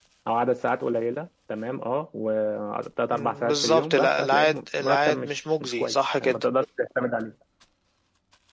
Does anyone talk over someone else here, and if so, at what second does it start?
3.1 s

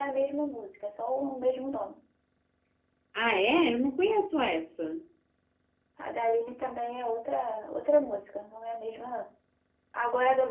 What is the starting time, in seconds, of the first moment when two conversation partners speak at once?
none

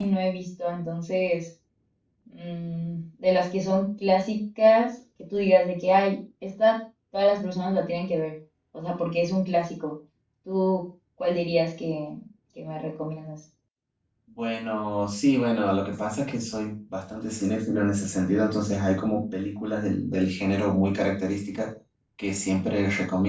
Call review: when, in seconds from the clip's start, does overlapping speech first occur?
none

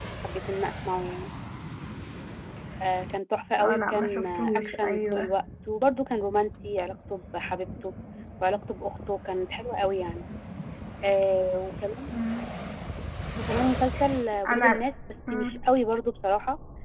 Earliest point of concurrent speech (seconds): 3.6 s

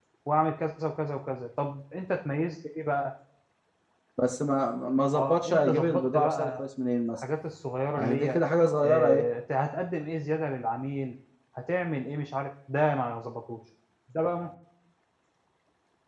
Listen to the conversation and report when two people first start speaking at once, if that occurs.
5.1 s

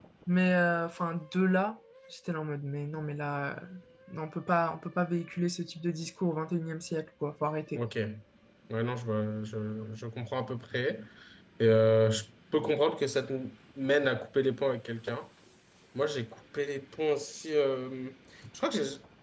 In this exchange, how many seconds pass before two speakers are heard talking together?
none

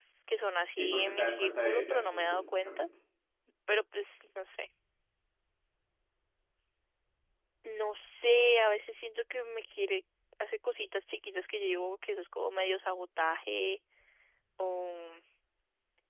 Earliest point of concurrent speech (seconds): 0.8 s

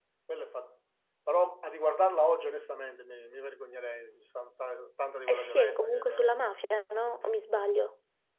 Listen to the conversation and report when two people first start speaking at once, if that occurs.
5.3 s

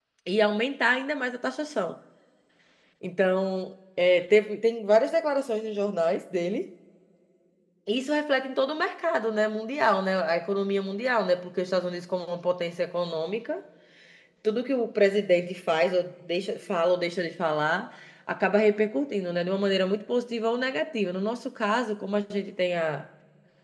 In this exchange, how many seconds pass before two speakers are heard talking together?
none

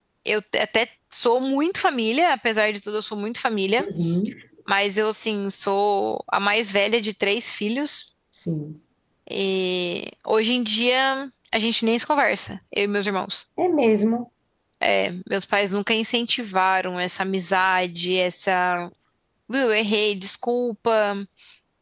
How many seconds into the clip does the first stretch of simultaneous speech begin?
none

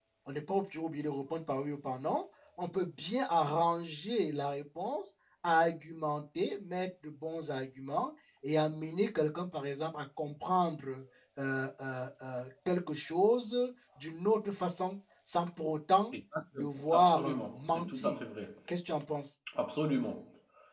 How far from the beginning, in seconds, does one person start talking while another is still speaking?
16.6 s

